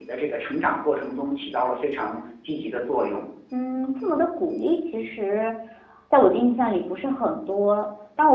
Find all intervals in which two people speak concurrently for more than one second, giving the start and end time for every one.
none

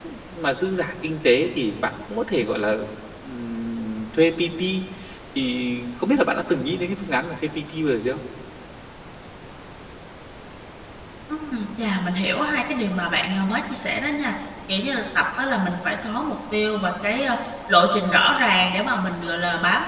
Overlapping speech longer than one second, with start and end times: none

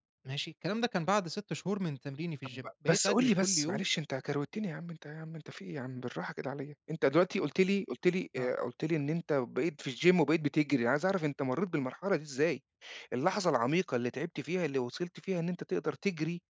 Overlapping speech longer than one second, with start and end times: 2.5-3.8

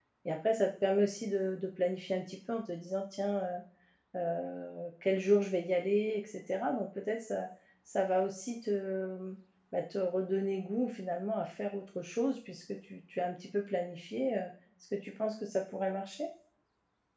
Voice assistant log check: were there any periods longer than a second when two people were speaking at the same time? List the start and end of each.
none

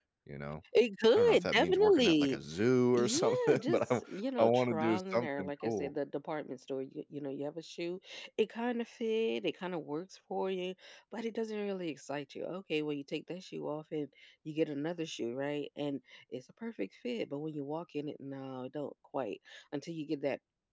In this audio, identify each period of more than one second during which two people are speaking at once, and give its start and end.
1.1-2.4, 2.9-5.9

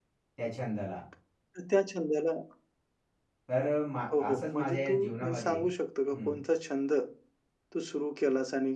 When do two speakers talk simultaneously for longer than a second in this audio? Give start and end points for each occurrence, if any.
4.2-5.6

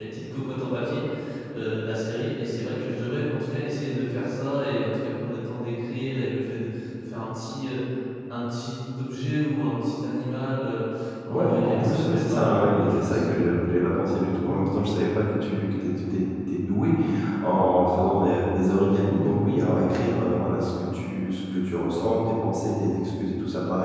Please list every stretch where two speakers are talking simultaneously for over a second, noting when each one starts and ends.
11.3-13.2

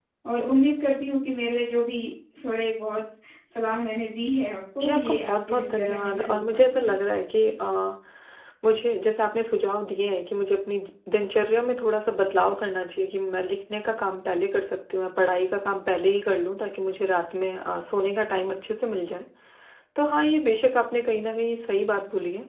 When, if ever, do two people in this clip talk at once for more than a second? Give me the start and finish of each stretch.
4.8-6.9

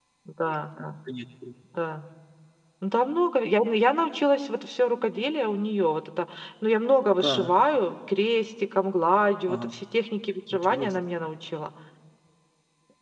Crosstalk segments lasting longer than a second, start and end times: none

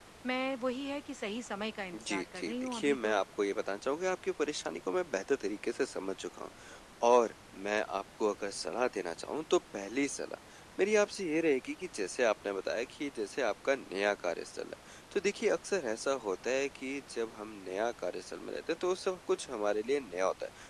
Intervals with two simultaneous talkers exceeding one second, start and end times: 1.9-3.2

